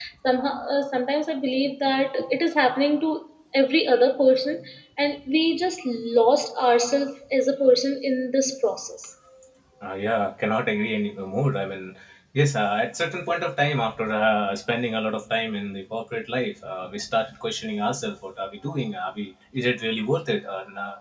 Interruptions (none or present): none